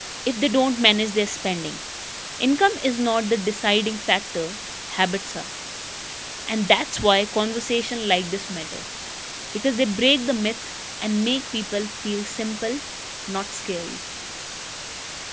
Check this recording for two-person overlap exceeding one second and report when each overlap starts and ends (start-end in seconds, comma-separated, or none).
none